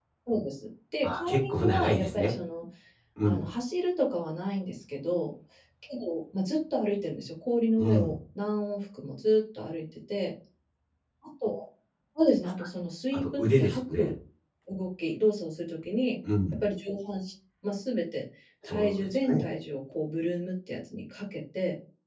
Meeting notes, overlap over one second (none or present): present